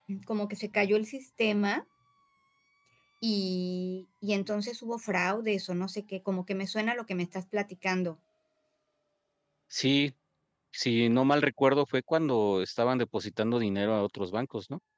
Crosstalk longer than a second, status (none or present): none